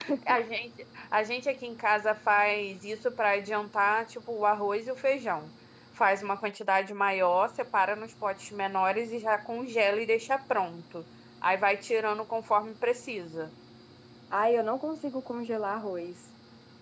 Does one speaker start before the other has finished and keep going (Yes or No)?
No